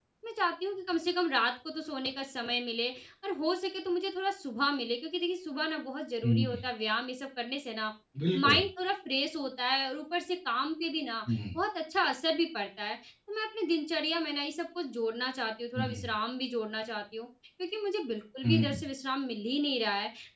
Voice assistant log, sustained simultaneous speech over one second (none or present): none